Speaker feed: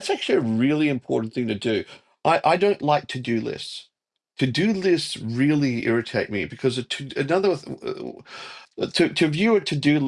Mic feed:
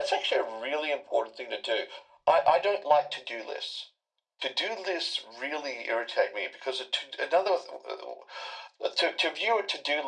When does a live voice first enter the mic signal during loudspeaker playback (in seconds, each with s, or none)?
none